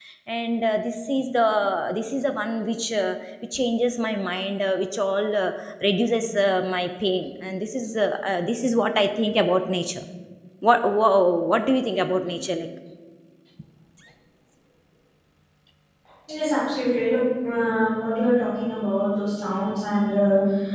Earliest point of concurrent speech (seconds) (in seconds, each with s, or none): none